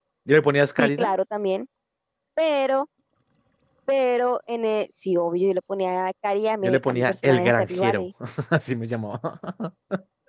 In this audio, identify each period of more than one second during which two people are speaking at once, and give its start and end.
6.6-8.1

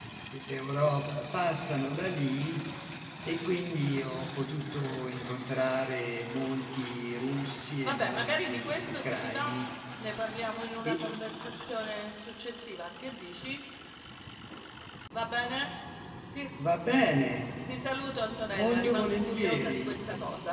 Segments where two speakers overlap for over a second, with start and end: 7.8-9.6, 18.5-20.0

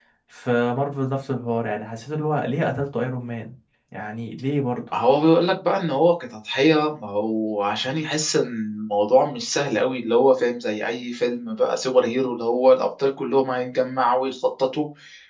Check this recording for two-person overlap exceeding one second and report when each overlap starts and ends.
none

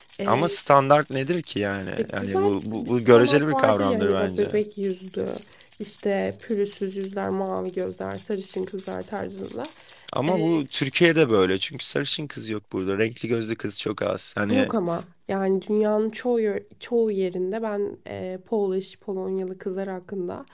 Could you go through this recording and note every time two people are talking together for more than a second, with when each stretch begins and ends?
2.0-4.6

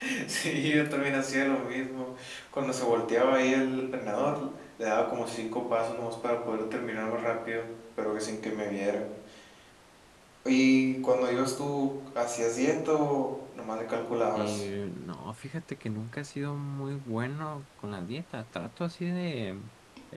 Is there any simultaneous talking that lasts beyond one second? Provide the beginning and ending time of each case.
none

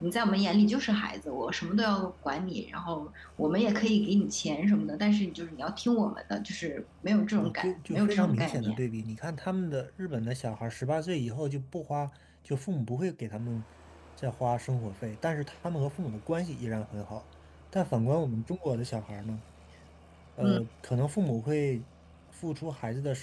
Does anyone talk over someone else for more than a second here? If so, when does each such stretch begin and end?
7.4-8.8

